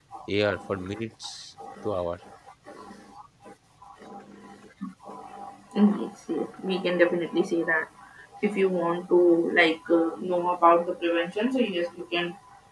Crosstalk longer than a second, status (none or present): none